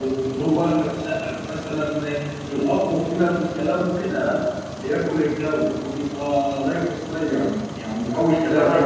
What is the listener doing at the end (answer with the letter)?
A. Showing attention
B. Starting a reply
B